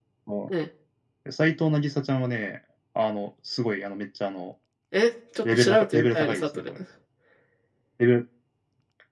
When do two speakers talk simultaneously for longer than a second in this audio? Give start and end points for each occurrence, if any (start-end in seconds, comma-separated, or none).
5.4-6.7